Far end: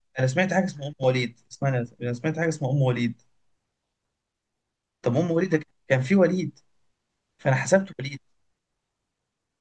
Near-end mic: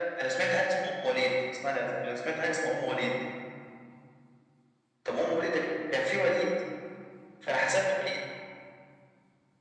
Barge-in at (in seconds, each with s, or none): none